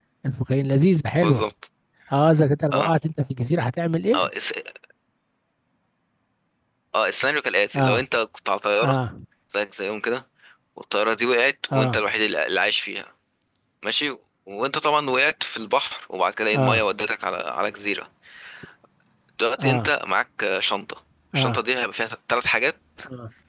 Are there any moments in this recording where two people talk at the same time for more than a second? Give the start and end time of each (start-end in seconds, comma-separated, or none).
none